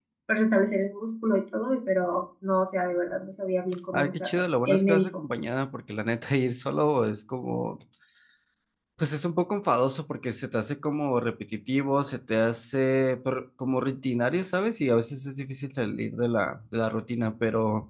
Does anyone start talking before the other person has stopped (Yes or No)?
Yes